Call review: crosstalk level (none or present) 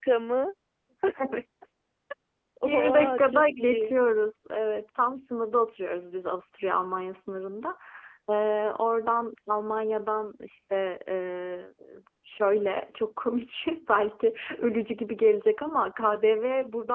present